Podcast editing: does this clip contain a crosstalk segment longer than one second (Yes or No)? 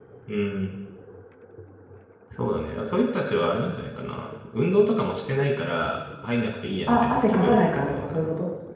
Yes